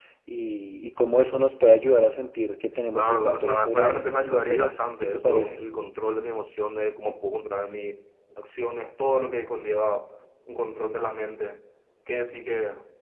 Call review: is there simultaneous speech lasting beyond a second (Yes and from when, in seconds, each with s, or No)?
Yes, from 2.9 s